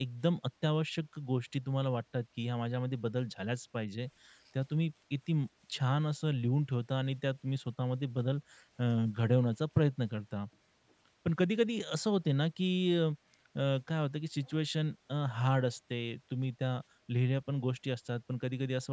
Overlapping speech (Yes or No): No